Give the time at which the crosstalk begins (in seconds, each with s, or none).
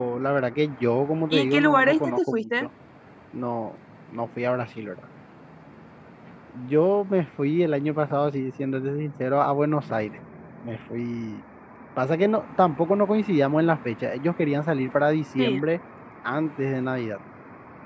1.3 s